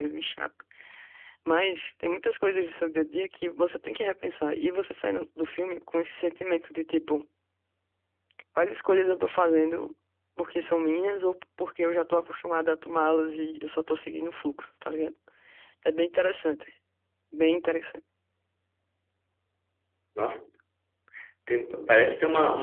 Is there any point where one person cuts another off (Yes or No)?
No